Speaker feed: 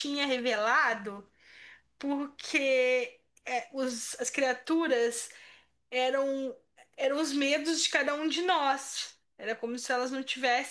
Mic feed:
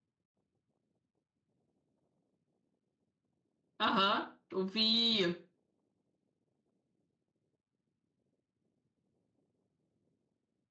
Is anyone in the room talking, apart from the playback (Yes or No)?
Yes